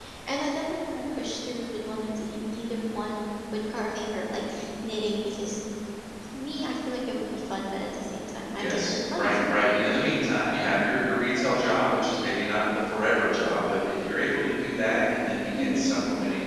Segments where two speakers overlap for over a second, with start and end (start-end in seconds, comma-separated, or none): 8.6-9.8